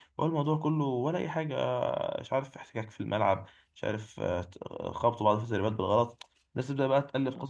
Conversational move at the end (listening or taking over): listening